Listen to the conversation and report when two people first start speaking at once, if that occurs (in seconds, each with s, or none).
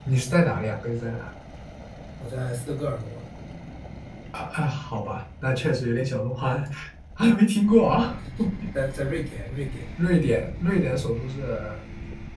none